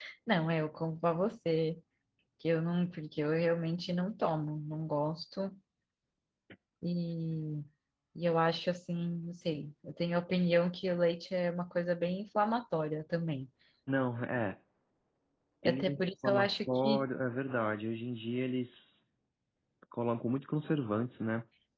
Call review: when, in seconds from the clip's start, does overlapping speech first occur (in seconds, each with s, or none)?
15.6 s